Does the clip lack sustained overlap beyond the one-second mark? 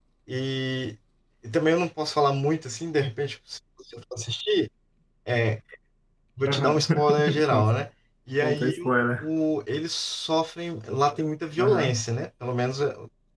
No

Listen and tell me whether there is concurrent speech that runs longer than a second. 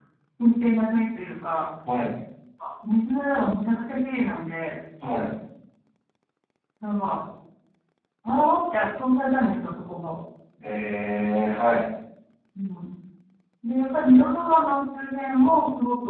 No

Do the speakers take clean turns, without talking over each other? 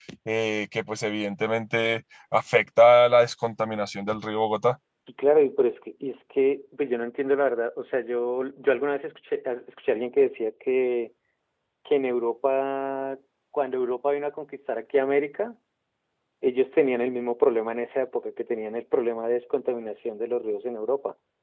Yes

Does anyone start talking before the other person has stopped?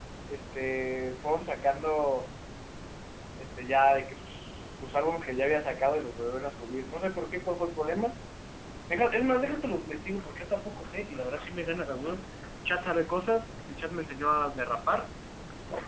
No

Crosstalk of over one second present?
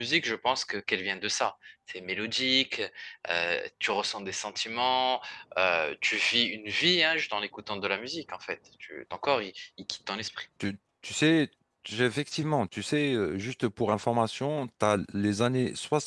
No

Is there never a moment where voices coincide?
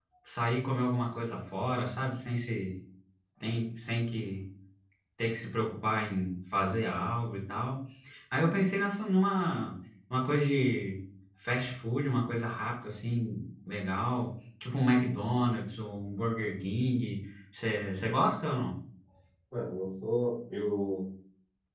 Yes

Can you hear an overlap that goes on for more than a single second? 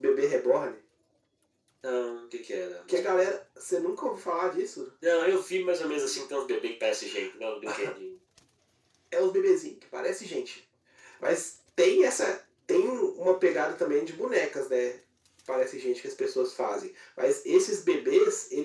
No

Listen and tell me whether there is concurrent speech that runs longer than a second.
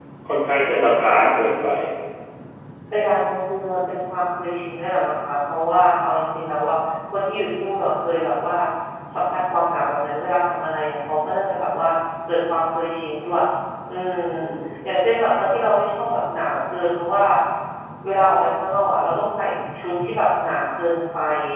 No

